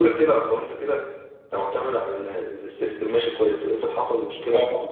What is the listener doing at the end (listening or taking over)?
taking over